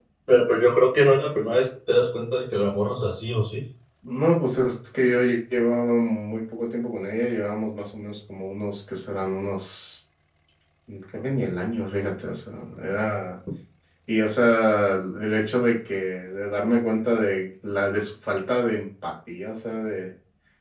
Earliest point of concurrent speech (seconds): none

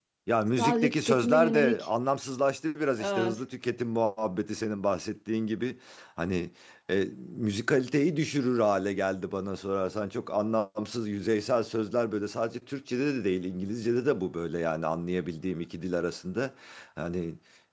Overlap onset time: 0.6 s

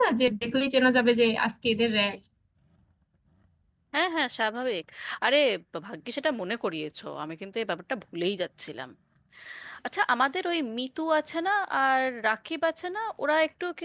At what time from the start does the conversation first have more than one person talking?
none

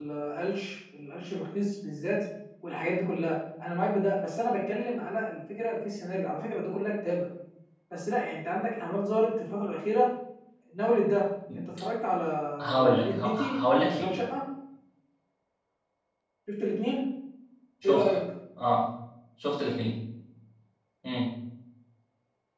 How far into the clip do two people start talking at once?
12.7 s

